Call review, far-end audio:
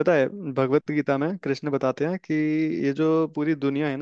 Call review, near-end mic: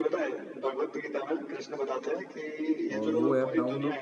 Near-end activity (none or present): present